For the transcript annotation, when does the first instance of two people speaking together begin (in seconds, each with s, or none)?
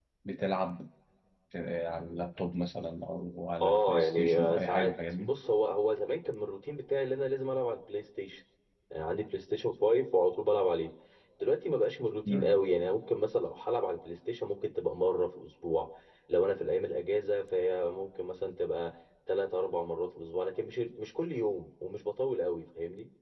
3.6 s